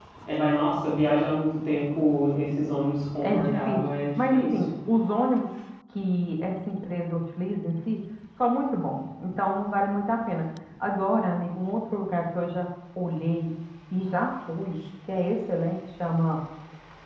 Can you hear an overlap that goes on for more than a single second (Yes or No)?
Yes